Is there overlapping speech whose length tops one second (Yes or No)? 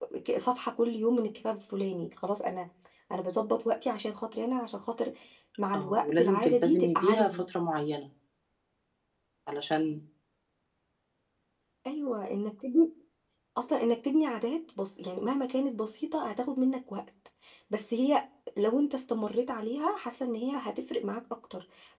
Yes